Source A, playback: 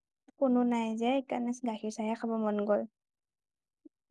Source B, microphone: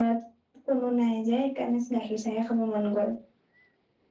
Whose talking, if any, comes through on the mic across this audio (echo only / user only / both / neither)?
echo only